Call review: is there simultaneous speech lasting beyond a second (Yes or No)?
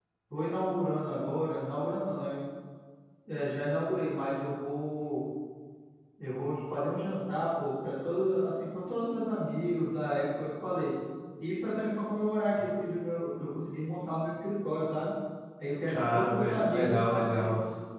Yes